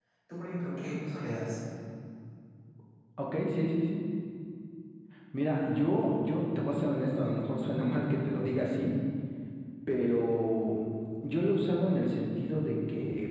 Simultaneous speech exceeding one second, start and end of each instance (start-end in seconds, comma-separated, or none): none